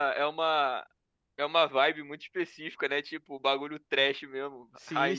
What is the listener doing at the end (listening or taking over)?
taking over